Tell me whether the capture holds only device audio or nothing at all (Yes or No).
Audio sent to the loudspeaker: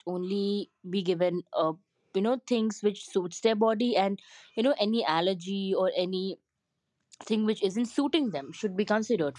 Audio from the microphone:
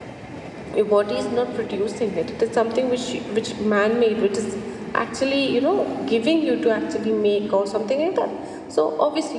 No